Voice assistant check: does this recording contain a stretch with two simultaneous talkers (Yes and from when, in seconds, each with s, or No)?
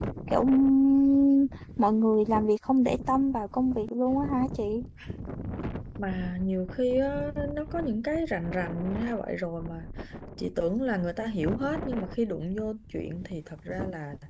No